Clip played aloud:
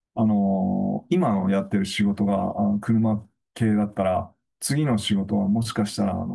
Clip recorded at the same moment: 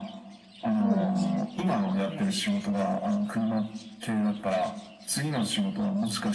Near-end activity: present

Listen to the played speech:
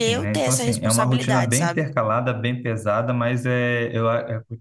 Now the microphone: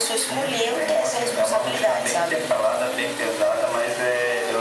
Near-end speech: none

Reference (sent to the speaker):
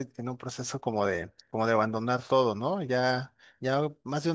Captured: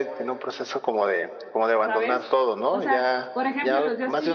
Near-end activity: present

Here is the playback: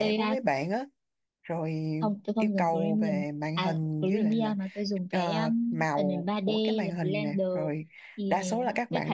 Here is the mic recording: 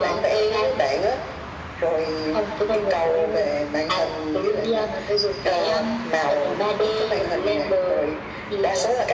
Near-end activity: none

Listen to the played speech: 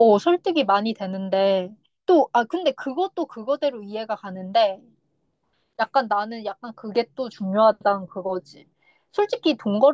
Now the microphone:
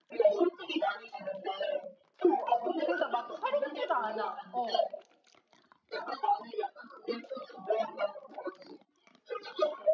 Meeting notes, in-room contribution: present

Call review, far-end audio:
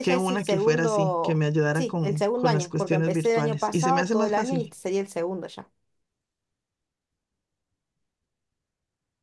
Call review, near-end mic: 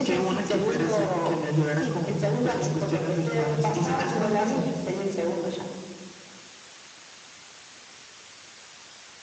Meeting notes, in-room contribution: none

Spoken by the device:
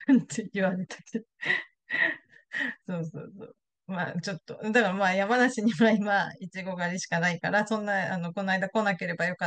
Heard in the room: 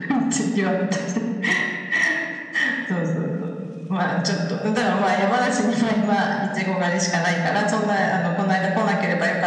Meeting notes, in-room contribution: none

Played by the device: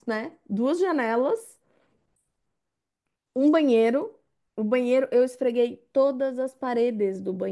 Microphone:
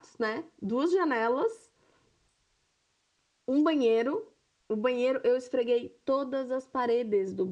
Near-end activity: none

